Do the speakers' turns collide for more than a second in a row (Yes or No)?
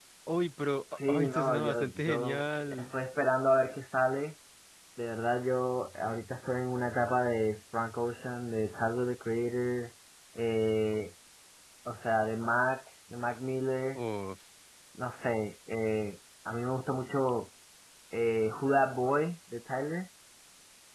Yes